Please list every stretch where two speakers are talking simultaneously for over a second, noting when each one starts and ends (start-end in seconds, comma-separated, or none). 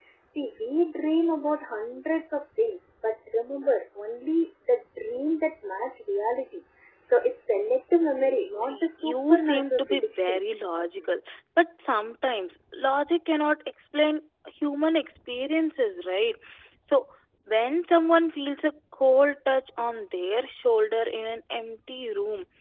8.6-10.4